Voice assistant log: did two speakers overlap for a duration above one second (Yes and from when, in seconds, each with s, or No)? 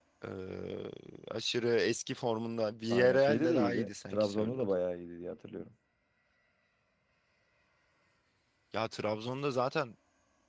Yes, from 2.9 s